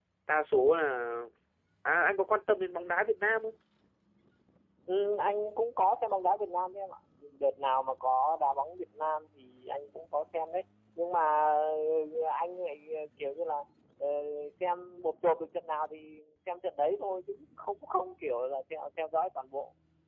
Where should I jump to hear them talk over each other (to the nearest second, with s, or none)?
none